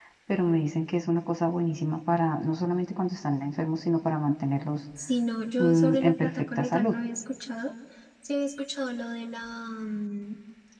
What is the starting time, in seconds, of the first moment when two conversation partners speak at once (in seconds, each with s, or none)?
5.6 s